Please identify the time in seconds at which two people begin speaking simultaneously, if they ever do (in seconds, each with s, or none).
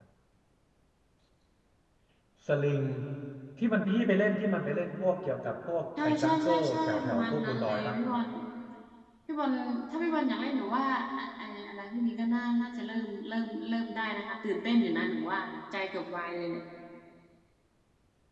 6.0 s